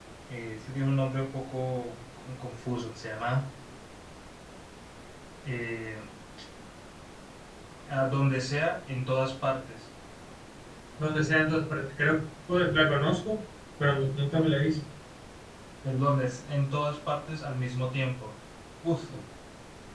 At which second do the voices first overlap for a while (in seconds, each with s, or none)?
none